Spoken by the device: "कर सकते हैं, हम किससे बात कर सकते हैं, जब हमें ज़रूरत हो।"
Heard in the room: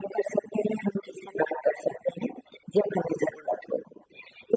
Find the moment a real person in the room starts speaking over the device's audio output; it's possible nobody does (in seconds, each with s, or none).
none